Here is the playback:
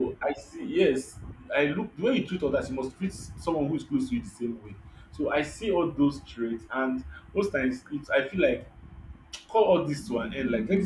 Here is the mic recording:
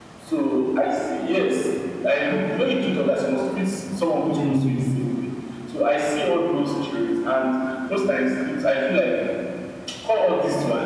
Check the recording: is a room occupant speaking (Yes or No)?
Yes